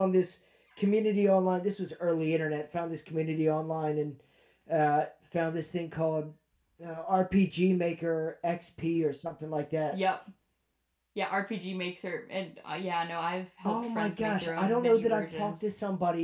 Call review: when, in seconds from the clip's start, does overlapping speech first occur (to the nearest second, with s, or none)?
14 s